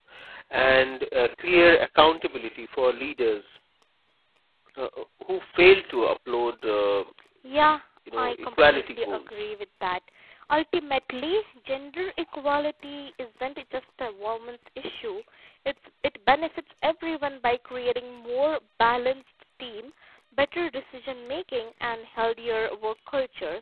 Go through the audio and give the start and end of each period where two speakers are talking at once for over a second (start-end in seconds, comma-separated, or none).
8.2-9.5